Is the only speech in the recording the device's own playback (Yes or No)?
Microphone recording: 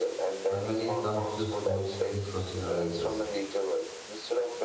No